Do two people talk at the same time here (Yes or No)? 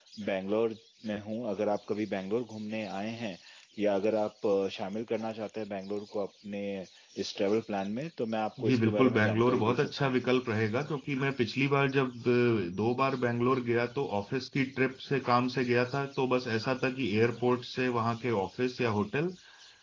Yes